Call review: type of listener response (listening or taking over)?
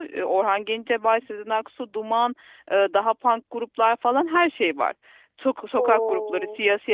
listening